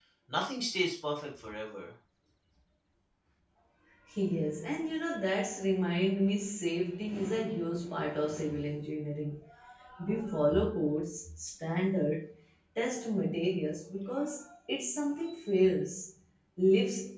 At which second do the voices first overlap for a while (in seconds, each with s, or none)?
none